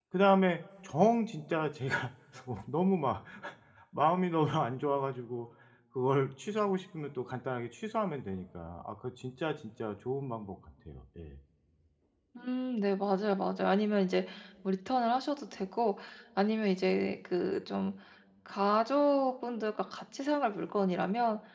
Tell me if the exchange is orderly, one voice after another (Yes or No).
Yes